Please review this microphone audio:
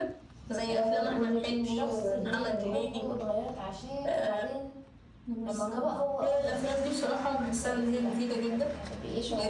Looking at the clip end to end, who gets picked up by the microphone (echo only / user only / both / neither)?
both